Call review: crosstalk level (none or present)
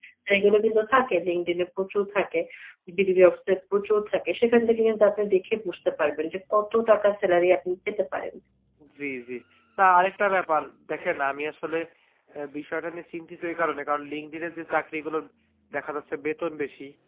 none